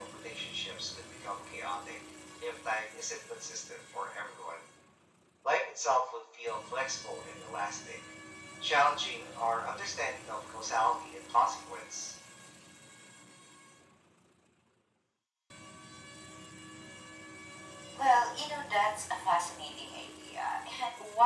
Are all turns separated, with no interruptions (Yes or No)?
Yes